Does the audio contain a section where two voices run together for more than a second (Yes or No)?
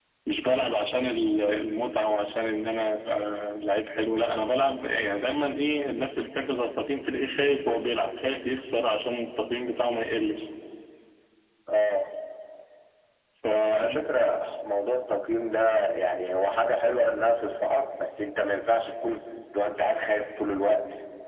No